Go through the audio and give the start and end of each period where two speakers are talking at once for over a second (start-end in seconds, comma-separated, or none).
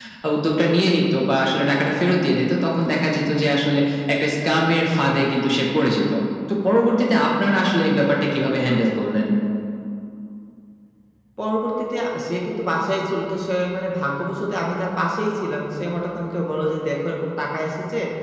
none